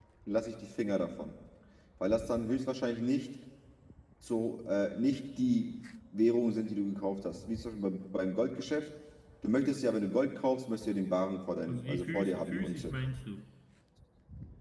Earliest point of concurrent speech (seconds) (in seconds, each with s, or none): 11.7 s